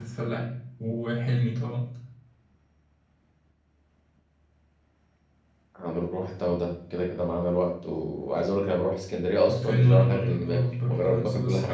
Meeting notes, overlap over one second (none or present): present